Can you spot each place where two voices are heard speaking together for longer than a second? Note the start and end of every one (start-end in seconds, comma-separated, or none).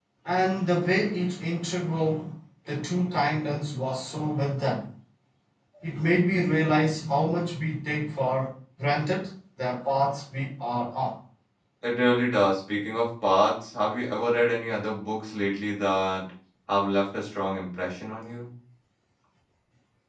none